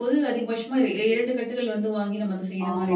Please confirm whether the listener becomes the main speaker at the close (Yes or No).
Yes